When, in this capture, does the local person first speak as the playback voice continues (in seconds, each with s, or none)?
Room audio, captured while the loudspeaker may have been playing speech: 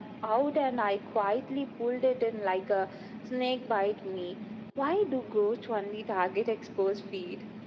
none